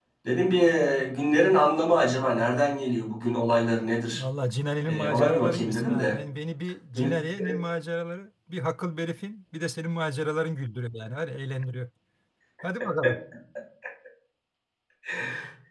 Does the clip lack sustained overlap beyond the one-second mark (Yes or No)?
No